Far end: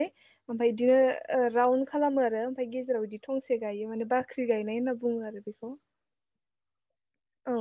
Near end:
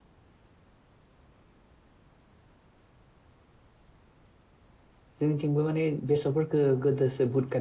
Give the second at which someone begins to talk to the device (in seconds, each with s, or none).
5.2 s